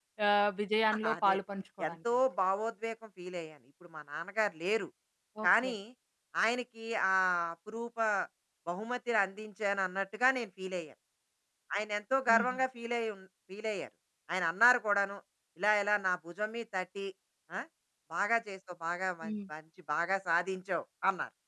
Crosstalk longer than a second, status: none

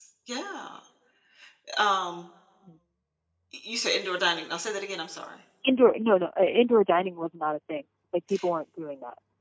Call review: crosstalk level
none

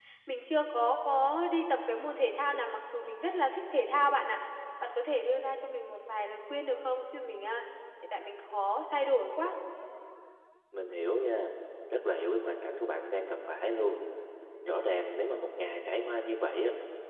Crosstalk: none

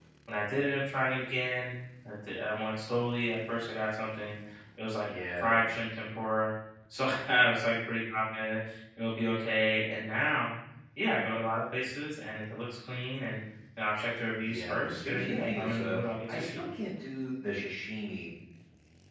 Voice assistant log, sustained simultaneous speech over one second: present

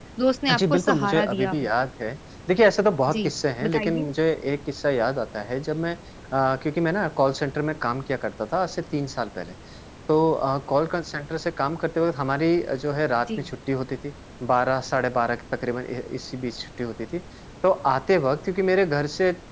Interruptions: present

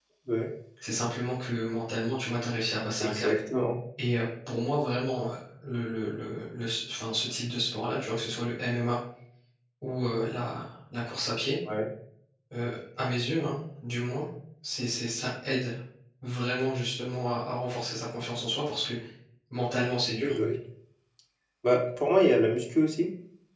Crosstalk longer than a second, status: none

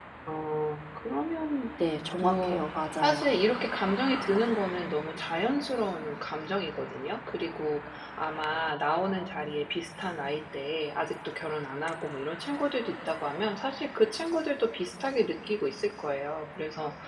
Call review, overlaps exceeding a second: none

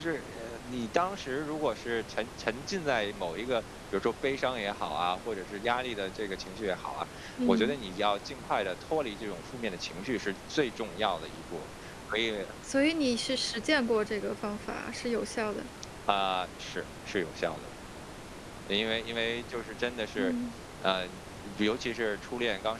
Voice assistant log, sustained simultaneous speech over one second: none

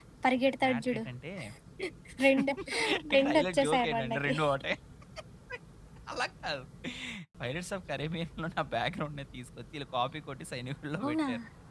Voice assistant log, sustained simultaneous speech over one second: present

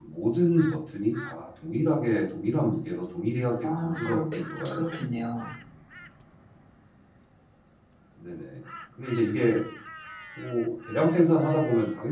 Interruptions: present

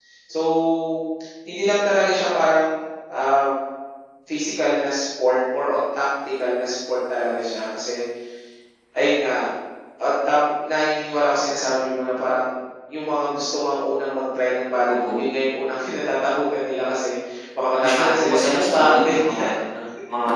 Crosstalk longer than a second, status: present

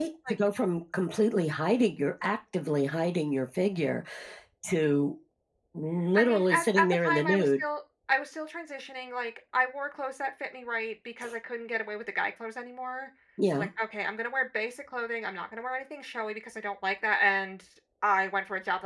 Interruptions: present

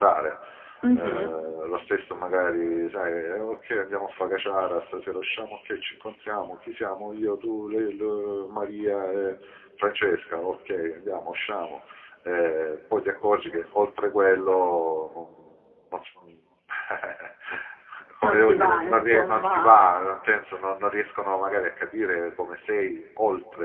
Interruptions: present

